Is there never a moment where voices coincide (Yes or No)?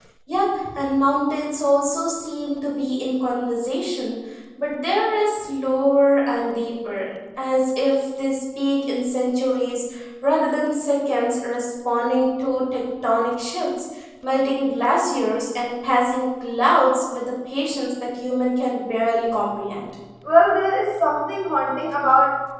Yes